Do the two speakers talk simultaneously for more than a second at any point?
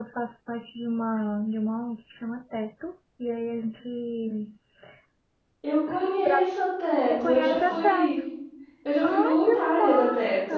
Yes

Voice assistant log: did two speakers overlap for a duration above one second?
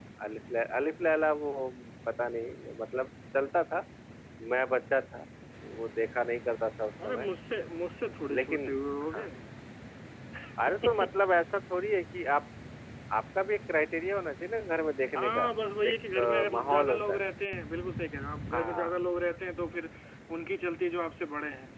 Yes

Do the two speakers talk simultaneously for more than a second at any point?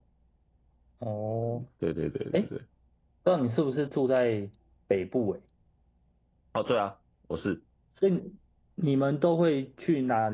No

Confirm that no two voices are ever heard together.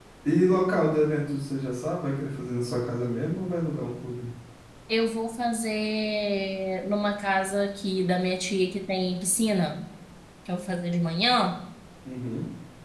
Yes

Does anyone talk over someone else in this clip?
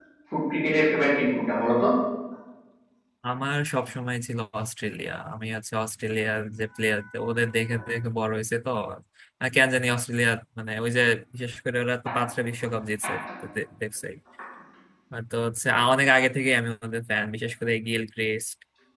No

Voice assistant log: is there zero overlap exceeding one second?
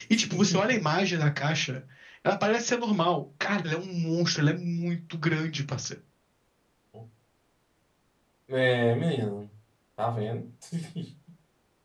Yes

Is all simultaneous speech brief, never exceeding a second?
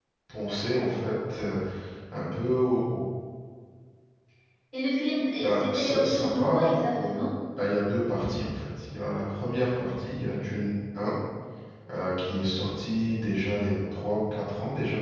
No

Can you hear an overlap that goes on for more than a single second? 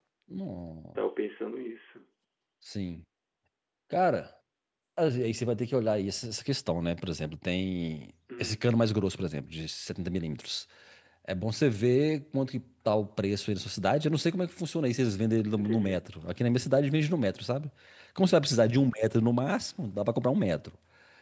No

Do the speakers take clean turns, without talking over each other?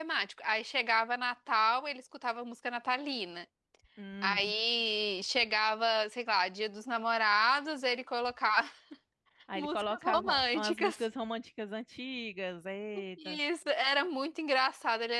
No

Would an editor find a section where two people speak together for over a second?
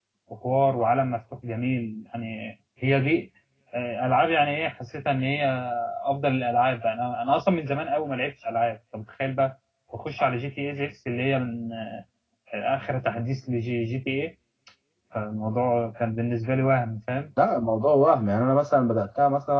No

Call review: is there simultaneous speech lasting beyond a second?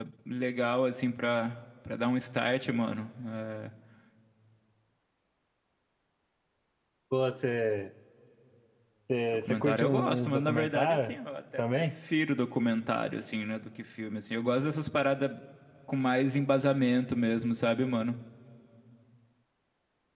Yes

